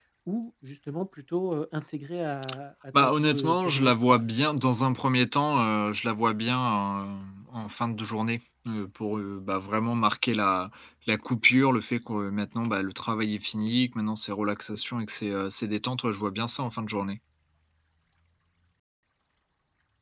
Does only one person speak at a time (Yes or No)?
No